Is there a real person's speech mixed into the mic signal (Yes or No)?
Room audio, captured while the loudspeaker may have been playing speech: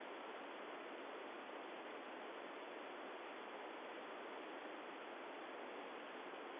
No